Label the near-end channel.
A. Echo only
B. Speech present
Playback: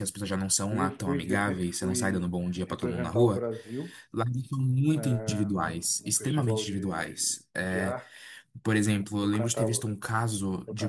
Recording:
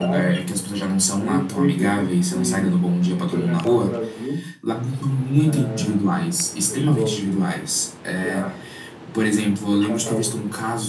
A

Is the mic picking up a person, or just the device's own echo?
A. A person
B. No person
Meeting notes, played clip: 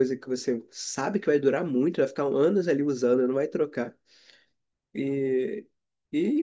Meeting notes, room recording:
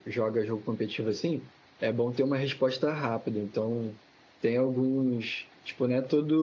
A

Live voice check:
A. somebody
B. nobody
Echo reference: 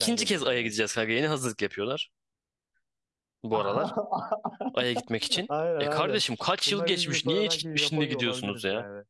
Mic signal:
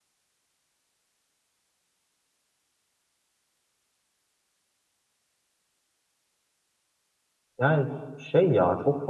A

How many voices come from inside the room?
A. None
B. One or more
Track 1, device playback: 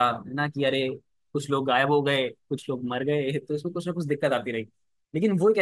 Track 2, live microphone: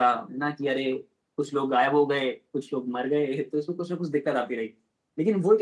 A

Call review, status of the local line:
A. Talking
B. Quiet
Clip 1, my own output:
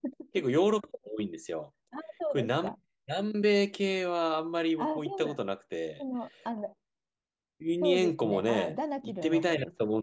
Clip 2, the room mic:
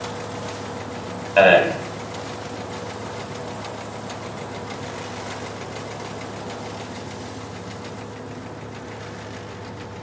A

